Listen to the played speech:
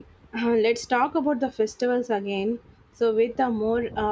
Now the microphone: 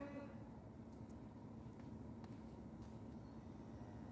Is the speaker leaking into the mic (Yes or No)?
No